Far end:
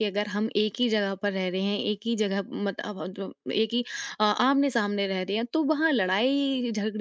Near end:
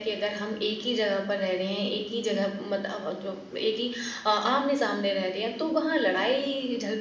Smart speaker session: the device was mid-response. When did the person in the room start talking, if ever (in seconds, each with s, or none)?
none